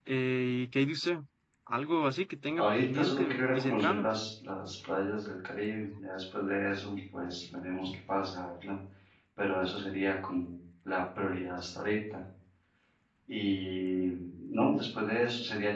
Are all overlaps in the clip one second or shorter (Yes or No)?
No